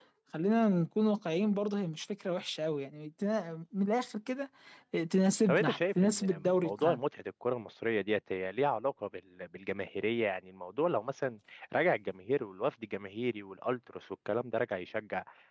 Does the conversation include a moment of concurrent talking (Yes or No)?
Yes